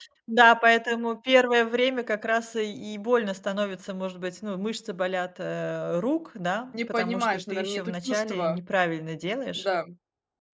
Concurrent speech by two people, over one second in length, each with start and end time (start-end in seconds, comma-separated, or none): 6.7-8.6